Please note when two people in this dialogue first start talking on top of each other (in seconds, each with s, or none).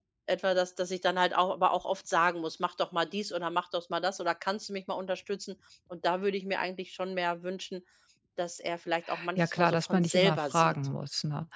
9.4 s